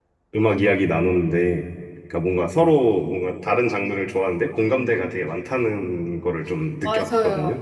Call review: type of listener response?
taking over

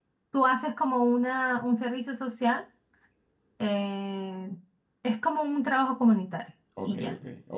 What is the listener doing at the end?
taking over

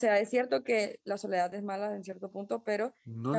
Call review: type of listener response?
listening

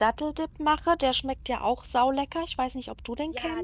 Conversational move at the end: taking over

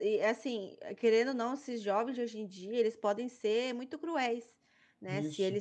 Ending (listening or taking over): listening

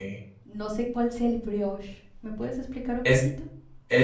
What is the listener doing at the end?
taking over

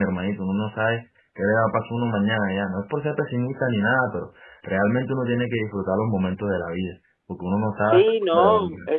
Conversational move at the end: taking over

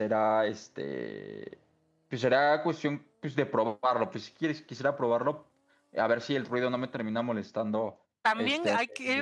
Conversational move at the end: taking over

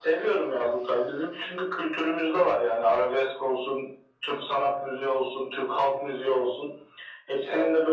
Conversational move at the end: listening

